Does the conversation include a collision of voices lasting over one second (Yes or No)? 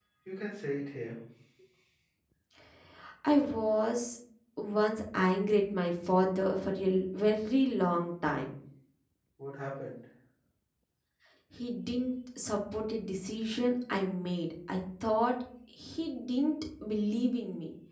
No